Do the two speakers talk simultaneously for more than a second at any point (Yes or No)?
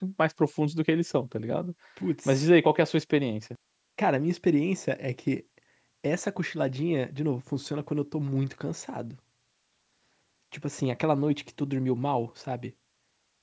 No